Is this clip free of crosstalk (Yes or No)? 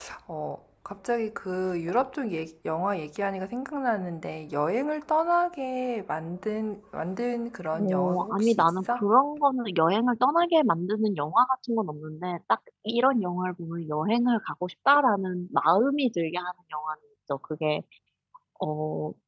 No